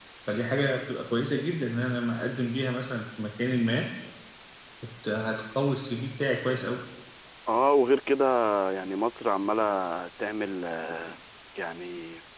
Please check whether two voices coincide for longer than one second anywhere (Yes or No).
No